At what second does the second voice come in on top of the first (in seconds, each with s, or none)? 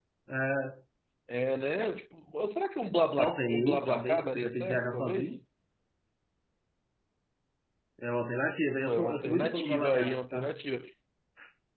3.2 s